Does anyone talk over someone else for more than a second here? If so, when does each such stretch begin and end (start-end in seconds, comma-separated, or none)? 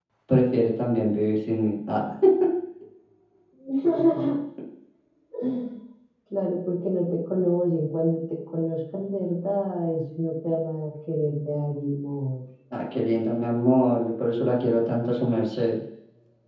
none